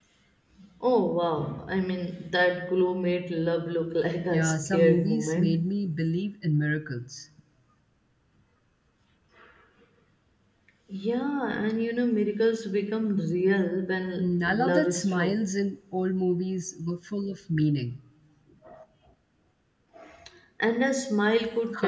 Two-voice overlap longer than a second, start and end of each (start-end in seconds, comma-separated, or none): 4.3-5.5, 14.2-15.4